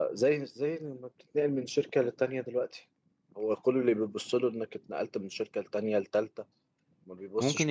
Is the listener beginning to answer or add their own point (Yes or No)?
Yes